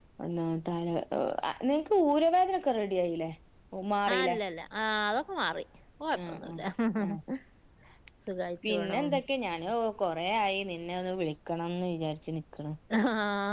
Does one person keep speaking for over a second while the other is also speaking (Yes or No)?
No